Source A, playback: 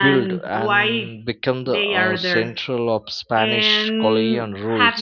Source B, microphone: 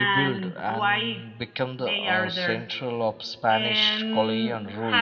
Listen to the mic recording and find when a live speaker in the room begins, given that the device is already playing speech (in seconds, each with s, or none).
none